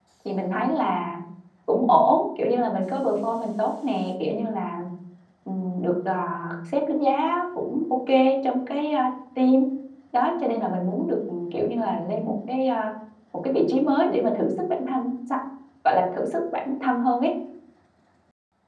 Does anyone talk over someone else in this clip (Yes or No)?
No